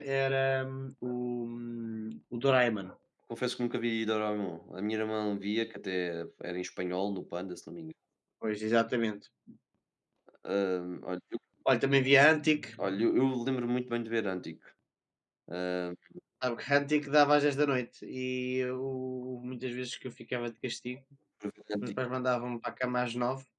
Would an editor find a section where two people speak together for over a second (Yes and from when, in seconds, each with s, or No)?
No